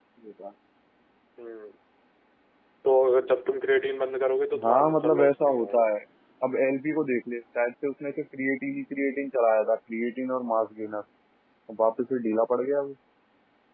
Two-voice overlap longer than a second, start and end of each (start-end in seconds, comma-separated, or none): 4.6-5.9